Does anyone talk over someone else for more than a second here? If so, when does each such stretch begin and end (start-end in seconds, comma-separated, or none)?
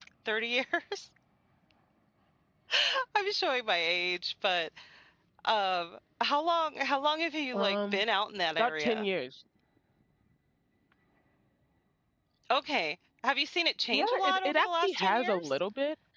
13.9-15.6